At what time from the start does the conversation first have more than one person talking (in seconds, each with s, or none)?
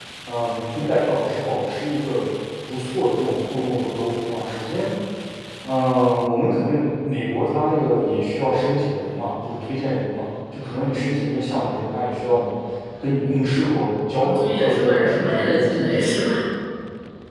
14.2 s